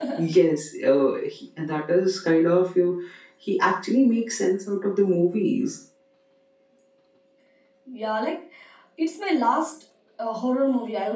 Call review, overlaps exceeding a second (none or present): none